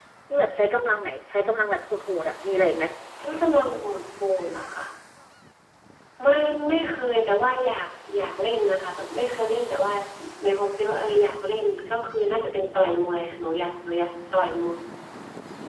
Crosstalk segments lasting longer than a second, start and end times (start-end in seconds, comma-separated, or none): none